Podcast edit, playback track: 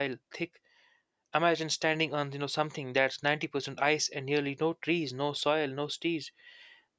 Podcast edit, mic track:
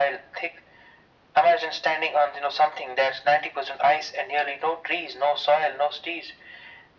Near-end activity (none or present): none